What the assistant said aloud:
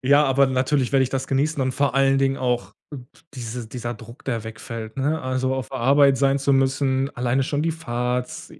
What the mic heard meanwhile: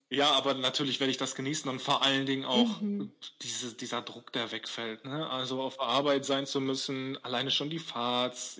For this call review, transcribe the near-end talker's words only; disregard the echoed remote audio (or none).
Mhm.